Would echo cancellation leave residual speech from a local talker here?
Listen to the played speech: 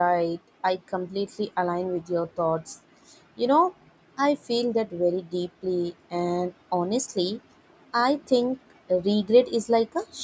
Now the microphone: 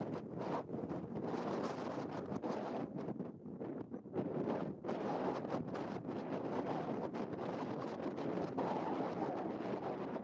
No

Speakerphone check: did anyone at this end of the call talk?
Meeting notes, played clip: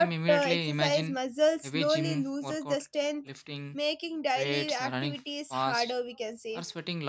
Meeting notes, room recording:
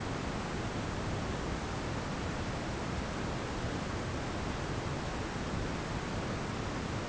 No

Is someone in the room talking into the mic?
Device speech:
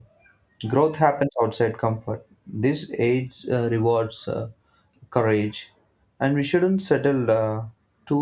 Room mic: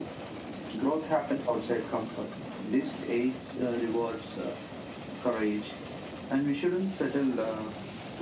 No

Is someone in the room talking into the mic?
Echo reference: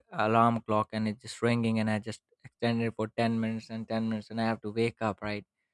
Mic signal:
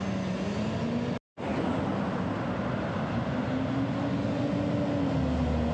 No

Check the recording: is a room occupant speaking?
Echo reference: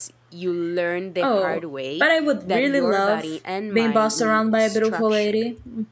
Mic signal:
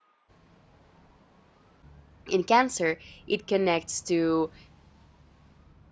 Yes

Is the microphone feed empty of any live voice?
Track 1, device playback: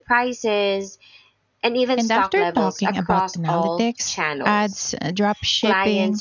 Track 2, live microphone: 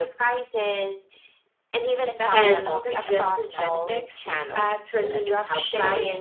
No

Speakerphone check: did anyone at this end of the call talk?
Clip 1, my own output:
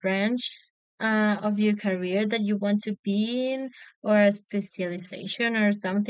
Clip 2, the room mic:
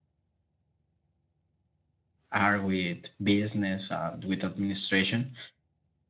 Yes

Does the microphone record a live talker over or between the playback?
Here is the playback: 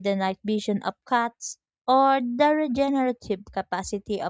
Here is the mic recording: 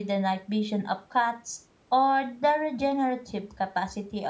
No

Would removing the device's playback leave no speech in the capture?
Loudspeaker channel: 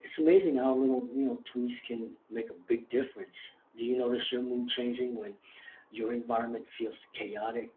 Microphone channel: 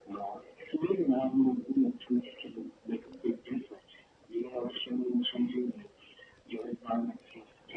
Yes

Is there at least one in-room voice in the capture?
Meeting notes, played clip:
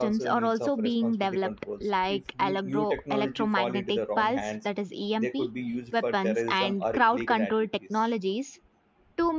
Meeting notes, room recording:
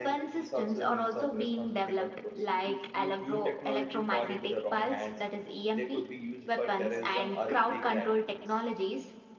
No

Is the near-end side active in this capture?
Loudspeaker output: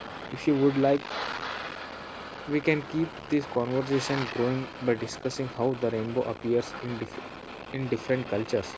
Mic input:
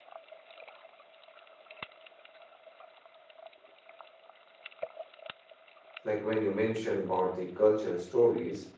Yes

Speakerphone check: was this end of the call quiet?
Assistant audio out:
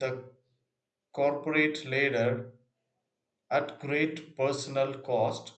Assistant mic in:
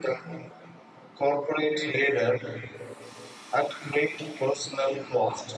Yes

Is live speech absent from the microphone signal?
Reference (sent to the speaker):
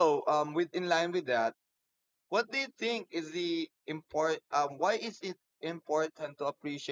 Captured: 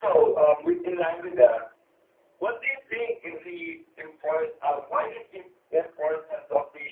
Yes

